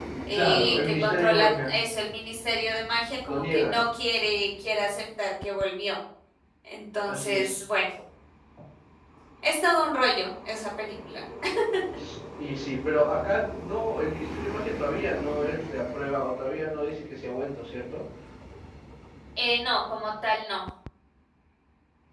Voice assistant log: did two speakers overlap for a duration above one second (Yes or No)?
Yes